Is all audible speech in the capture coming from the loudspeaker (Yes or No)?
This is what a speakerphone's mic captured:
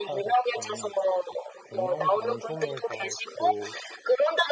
No